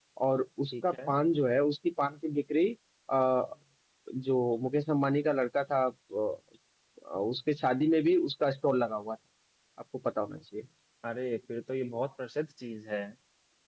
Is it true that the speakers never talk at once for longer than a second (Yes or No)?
Yes